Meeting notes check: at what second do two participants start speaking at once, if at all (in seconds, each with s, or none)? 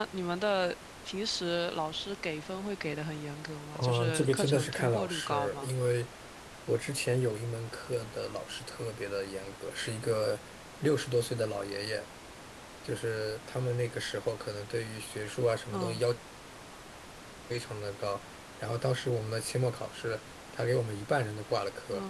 3.8 s